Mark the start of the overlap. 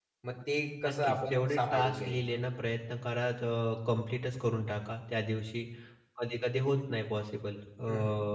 1 s

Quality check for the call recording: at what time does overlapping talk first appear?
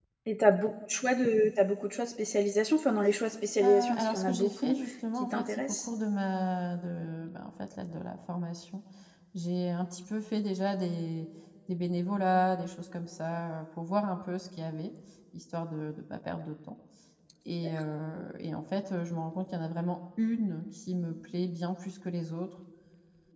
4 s

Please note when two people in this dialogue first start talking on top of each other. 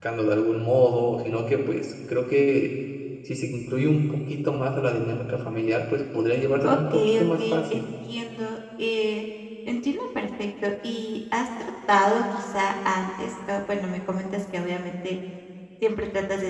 7 s

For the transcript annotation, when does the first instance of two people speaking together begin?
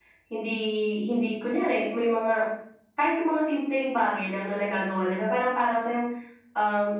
none

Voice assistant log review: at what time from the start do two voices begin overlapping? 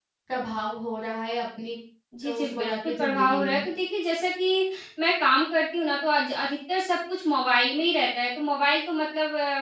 2 s

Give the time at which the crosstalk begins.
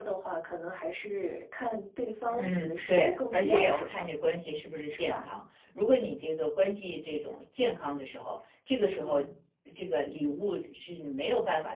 2 s

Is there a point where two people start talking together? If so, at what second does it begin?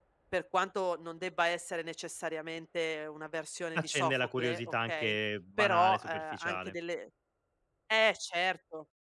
4 s

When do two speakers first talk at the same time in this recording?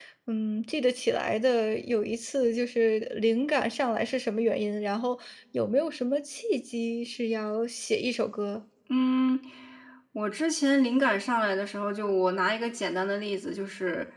none

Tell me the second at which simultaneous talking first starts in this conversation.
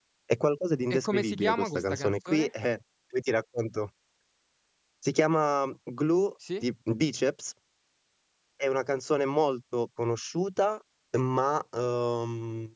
1 s

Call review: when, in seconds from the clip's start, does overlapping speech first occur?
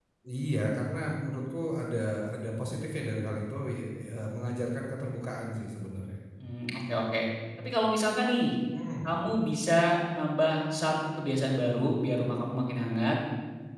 none

